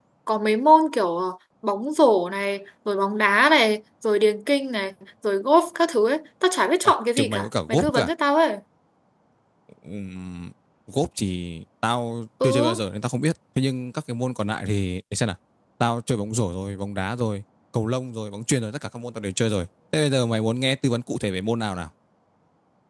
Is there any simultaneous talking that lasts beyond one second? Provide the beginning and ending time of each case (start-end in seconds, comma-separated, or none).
6.8-8.1